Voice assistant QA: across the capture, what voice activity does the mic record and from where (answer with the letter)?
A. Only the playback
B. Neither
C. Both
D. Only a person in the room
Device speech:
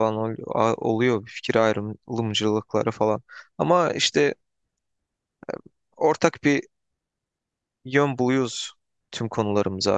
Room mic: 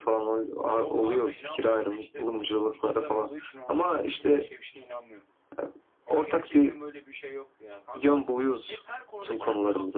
C